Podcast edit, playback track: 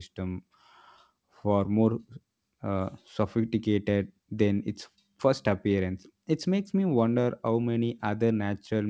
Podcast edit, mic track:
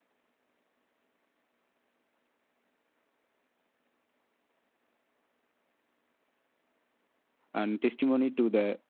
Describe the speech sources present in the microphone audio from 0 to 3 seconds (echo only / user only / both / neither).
neither